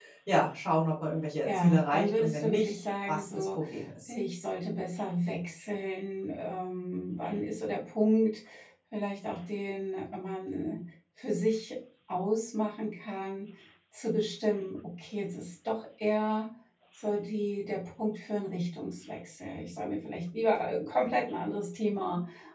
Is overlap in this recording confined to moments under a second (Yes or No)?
No